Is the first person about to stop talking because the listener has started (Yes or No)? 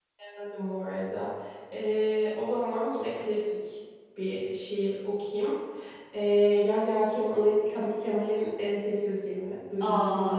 Yes